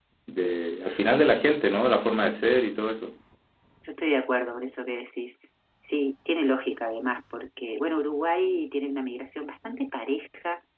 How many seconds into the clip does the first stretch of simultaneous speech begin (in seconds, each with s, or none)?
none